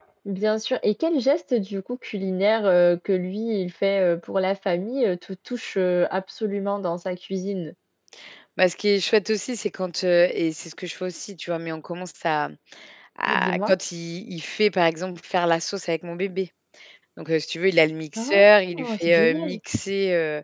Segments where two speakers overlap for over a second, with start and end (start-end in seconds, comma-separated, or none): 18.2-19.6